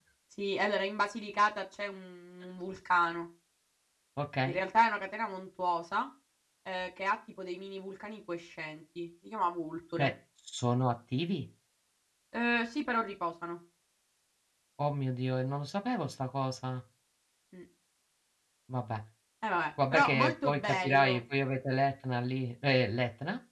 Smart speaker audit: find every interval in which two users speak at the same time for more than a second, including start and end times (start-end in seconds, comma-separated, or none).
19.9-21.2